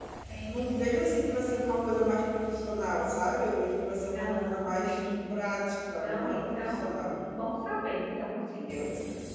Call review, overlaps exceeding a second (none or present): present